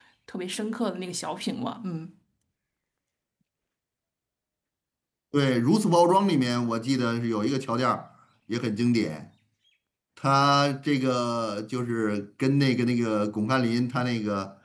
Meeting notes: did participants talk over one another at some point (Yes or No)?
No